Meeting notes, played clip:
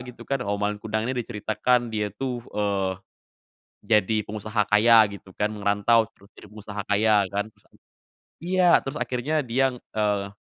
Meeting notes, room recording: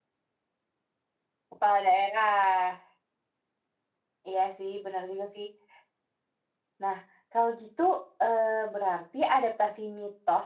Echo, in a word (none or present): none